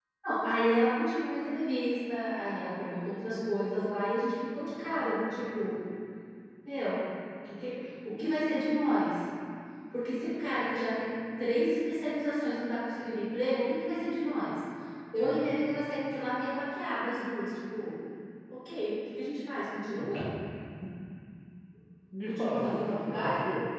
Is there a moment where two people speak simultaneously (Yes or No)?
Yes